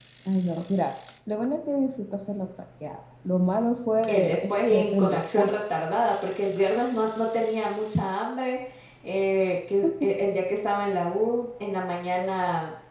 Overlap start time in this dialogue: 4.1 s

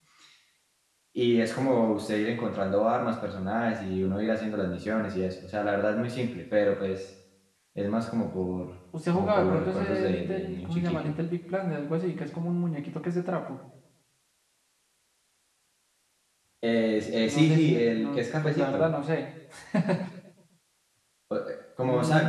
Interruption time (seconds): 9.1 s

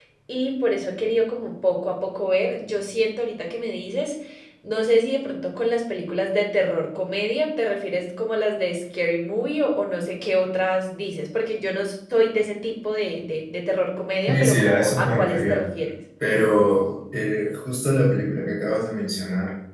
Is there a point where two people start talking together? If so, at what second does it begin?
14.3 s

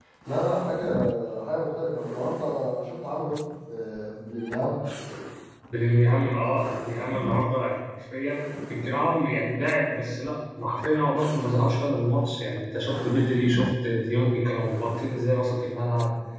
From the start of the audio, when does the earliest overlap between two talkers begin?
none

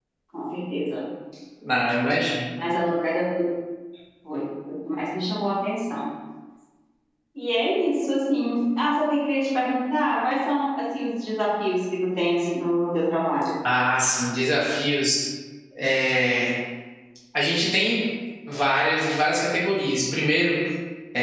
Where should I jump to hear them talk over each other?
none

